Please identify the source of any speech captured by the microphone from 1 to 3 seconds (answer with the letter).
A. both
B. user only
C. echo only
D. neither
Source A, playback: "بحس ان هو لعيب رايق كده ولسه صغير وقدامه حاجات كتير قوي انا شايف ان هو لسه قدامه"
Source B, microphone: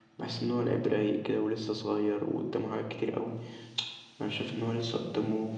C